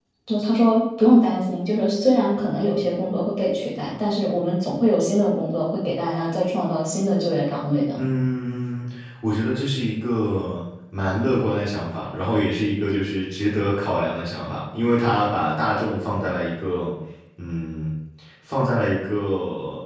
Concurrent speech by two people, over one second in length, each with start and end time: none

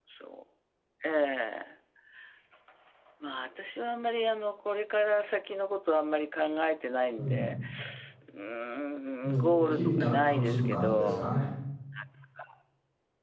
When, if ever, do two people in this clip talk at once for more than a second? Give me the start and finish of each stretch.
9.2-11.3

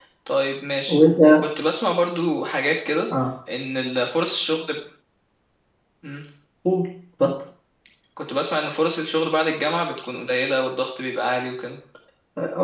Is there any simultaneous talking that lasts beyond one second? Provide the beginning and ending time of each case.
none

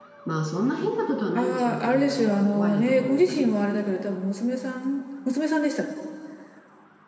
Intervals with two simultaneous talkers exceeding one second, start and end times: 1.4-3.5

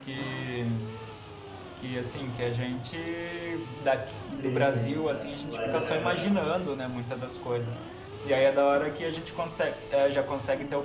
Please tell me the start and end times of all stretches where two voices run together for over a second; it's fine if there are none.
4.4-6.2

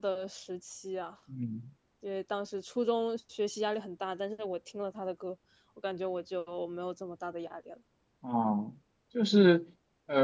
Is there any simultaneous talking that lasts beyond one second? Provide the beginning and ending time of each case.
none

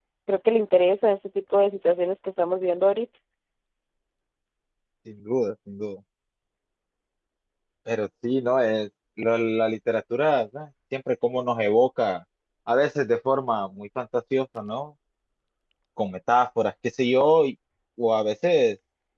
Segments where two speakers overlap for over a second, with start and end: none

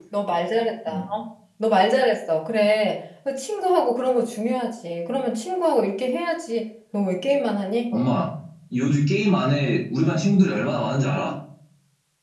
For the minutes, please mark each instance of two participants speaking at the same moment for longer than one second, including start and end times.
none

